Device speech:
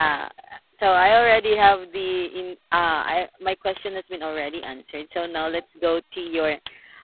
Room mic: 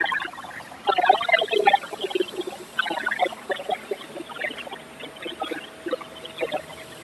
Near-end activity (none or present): none